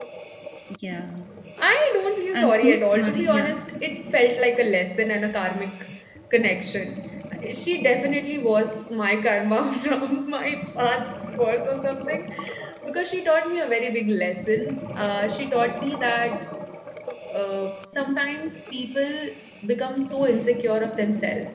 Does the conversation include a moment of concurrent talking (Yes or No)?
Yes